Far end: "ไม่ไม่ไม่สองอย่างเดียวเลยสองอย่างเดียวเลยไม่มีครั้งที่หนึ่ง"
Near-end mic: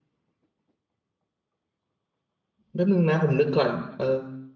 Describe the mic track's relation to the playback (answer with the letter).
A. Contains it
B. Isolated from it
B